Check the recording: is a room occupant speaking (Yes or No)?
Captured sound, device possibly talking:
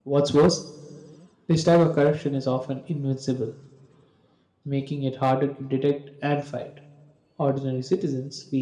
No